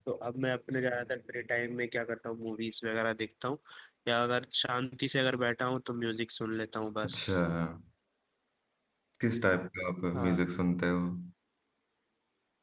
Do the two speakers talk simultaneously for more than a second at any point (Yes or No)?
No